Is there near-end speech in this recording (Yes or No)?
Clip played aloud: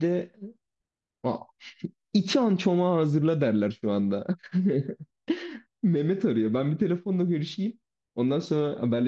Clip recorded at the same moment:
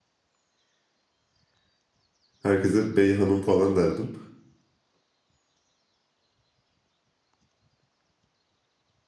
Yes